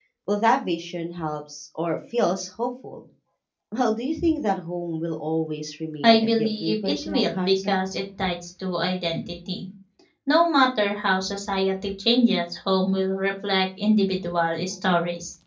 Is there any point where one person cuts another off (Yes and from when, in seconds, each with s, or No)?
Yes, from 6.0 s